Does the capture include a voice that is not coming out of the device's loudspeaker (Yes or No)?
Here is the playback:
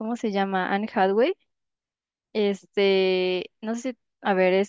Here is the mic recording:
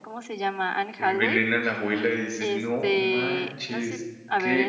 Yes